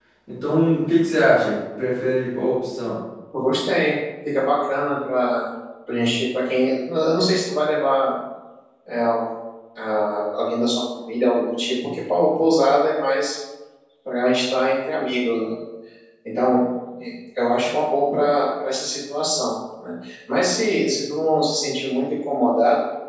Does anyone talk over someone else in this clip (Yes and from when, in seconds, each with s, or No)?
No